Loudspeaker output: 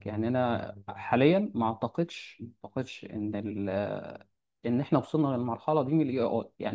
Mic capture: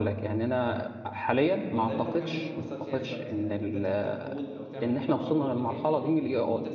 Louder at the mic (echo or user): echo